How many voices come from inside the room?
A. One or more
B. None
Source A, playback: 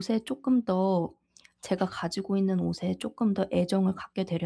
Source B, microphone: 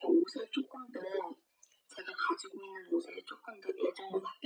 B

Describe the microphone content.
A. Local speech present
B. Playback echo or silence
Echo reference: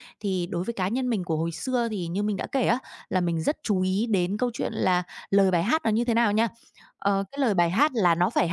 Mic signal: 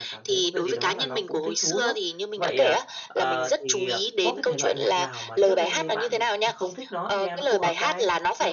A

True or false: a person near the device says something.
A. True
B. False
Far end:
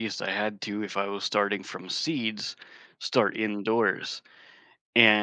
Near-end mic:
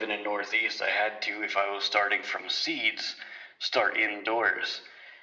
B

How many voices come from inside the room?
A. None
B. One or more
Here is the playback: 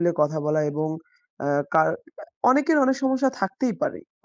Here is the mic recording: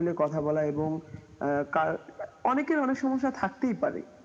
A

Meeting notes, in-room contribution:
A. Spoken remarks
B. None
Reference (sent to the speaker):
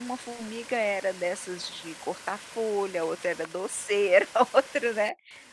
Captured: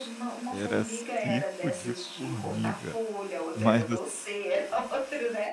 A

